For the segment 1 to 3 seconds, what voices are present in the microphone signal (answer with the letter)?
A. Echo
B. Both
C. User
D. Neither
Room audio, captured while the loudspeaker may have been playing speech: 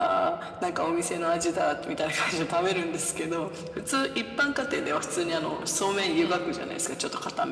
A